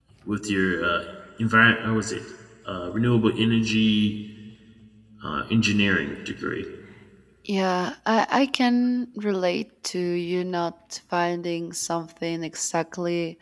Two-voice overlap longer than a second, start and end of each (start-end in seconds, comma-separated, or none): none